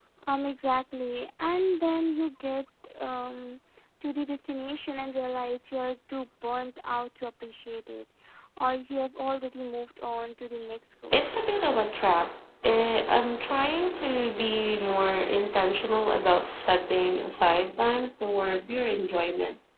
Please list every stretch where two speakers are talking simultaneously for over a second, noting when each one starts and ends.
none

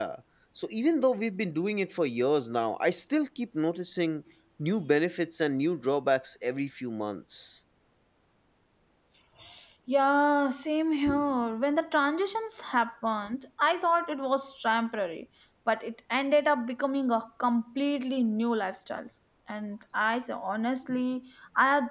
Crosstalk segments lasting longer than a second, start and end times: none

